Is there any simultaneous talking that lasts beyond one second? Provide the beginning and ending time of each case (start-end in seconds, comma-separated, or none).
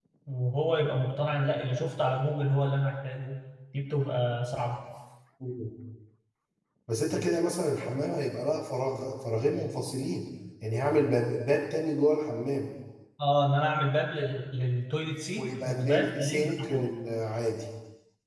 15.4-16.9